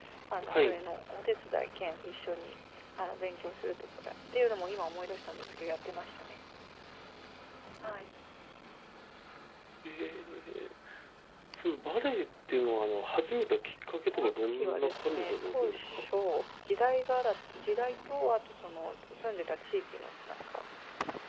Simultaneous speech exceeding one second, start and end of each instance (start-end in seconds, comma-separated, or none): 14.0-16.1